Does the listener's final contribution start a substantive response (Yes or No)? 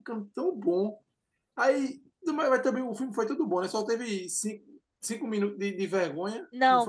Yes